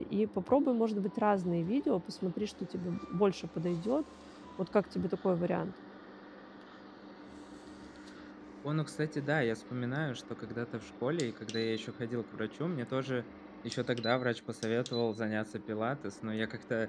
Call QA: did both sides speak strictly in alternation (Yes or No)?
Yes